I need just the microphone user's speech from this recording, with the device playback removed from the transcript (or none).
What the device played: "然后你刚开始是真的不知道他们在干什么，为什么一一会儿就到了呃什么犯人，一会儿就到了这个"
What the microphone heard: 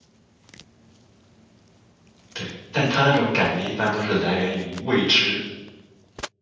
对，但他那种感觉一般都是来源于未知。